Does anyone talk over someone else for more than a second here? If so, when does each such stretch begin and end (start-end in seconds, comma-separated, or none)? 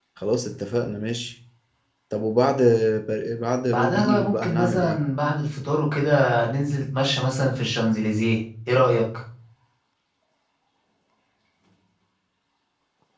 3.7-5.0